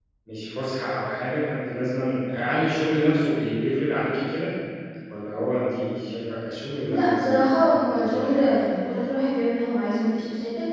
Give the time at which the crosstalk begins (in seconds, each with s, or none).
6.9 s